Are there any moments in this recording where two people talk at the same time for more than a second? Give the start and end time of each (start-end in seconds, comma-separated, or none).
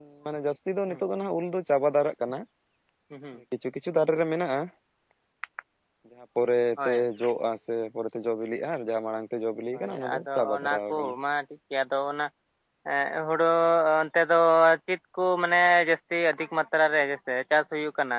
9.7-11.1